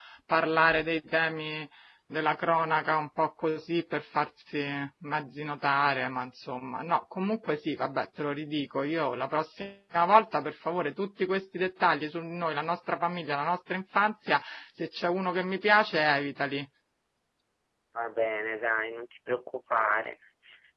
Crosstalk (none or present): none